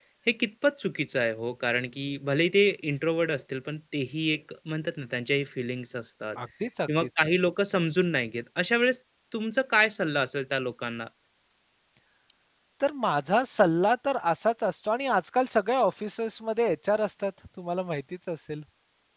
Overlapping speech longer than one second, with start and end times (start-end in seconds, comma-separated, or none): none